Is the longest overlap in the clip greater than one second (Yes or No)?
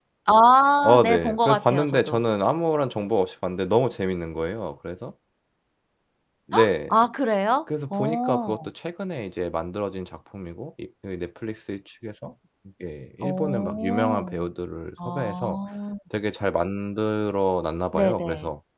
Yes